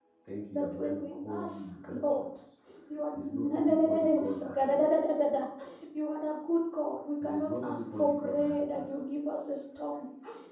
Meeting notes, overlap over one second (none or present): present